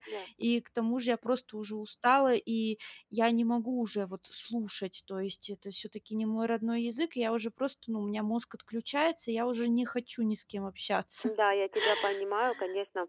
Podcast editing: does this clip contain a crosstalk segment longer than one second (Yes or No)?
No